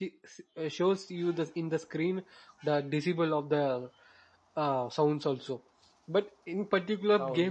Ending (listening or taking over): listening